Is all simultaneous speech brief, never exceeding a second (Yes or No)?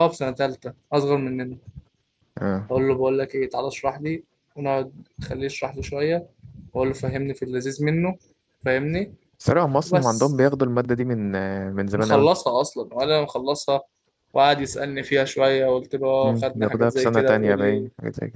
No